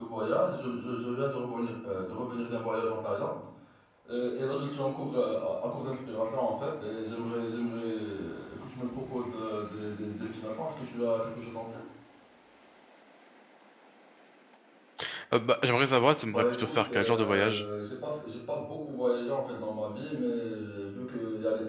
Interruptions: present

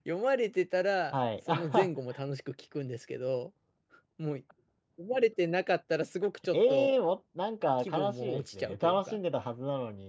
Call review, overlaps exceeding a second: present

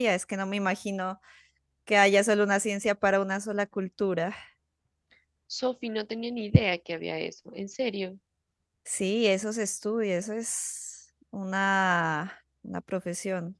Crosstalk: none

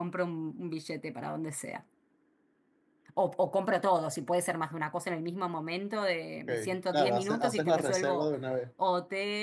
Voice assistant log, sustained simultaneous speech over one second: present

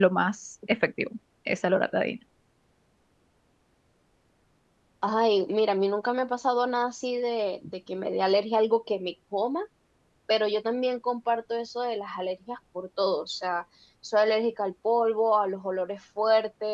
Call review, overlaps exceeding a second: none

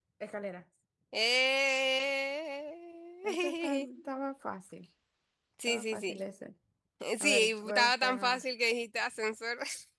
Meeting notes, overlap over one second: present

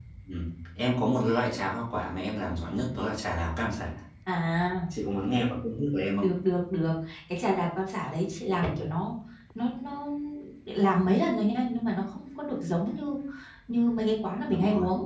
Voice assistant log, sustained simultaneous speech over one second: none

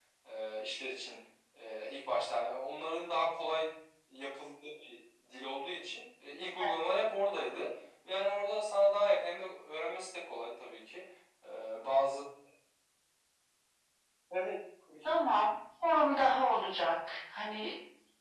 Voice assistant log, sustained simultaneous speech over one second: none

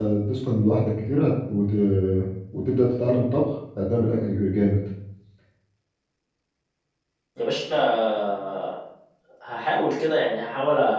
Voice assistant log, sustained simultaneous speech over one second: none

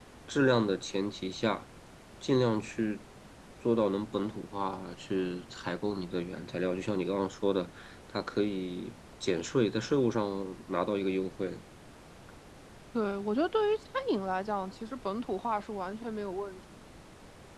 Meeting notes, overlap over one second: none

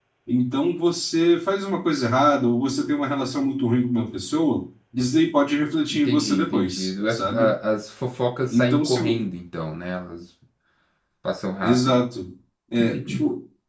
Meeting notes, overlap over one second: present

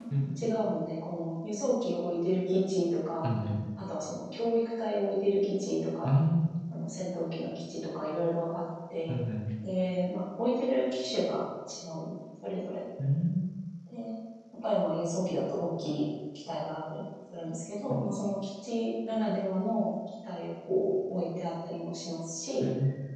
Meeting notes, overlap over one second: none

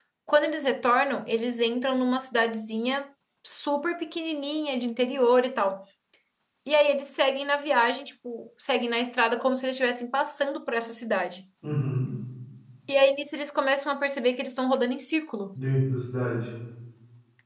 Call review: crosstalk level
none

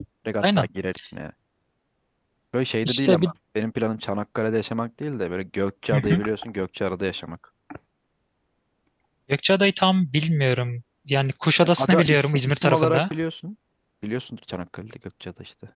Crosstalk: present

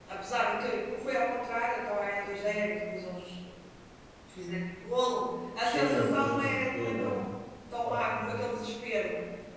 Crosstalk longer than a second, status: present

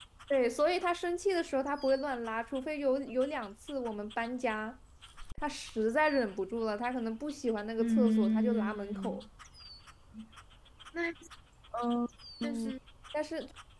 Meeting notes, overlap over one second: present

